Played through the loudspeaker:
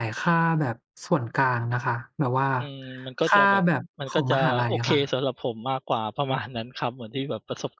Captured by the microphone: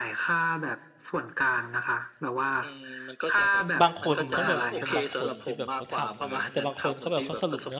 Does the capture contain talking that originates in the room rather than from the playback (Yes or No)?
Yes